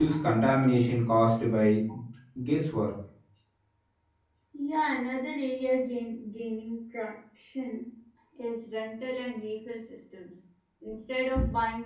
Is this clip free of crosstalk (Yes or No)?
Yes